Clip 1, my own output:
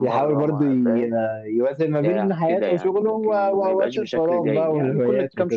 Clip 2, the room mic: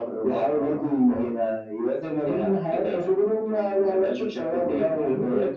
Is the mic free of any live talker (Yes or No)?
Yes